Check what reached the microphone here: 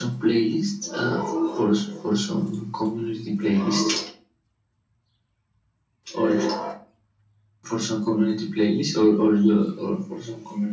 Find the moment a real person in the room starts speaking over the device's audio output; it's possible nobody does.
none

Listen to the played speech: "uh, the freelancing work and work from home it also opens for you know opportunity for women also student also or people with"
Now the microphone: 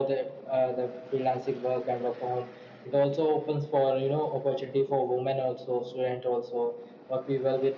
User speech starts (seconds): none

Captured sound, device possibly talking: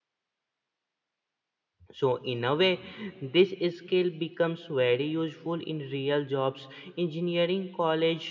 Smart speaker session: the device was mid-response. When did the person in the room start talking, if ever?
1.9 s

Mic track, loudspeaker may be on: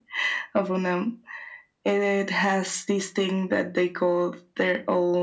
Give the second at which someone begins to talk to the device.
none

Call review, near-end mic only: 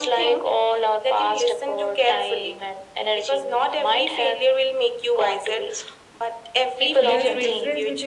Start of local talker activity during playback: 7.0 s

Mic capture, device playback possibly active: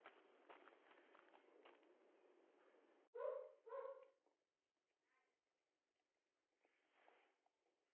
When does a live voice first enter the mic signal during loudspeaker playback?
none

